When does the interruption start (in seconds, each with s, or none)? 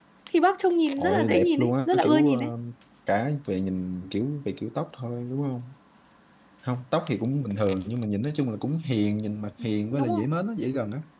1.0 s